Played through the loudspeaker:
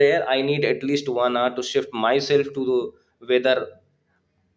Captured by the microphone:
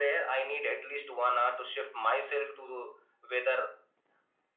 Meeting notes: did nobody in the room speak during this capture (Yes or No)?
Yes